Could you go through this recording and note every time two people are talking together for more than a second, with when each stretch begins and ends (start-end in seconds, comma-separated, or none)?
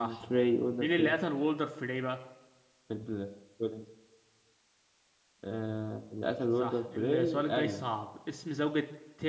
6.6-7.8